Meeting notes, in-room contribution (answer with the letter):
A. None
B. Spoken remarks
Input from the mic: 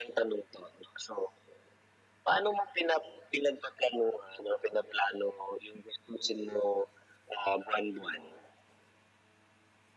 A